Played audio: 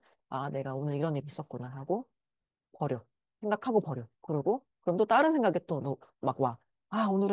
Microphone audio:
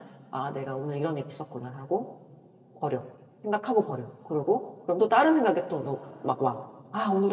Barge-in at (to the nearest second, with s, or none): none